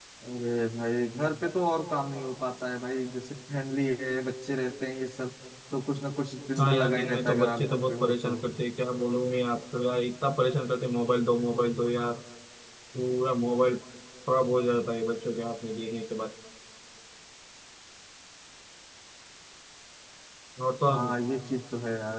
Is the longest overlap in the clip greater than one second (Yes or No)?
Yes